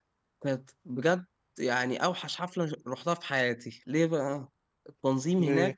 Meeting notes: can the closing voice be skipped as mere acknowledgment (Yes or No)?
Yes